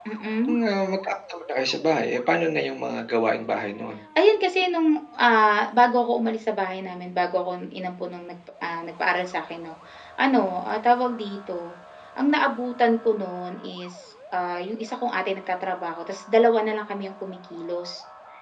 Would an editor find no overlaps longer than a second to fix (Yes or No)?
Yes